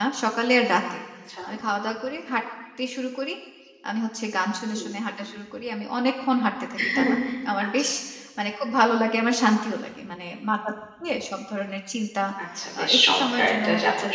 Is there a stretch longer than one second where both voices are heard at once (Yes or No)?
Yes